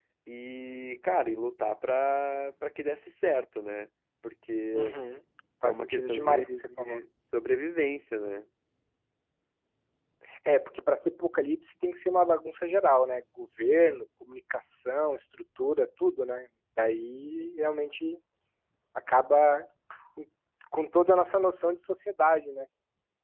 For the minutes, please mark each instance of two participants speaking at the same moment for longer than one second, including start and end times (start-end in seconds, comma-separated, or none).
5.6-7.0